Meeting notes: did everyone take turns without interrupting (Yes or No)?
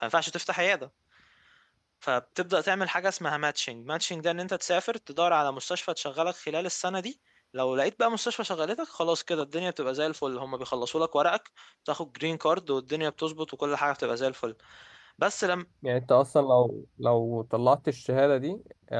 Yes